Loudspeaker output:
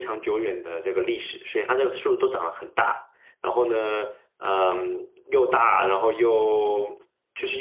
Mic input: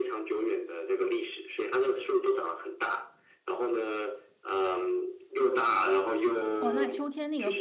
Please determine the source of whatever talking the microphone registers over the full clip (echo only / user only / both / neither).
both